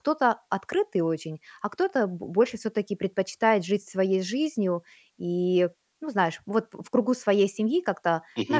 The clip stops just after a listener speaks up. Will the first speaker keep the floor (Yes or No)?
Yes